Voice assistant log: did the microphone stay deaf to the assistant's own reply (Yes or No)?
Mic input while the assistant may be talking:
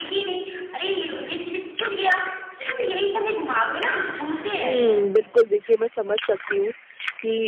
No